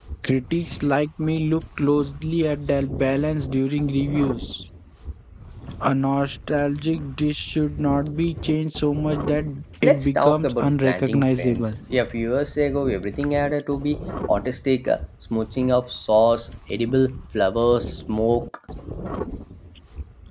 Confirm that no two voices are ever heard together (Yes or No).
No